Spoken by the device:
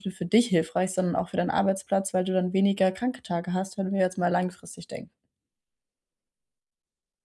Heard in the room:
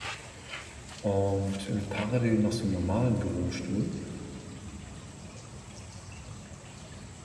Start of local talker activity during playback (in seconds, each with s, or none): 1.0 s